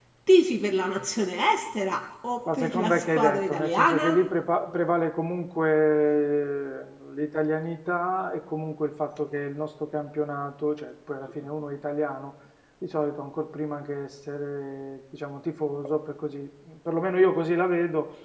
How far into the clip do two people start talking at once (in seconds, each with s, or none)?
2.4 s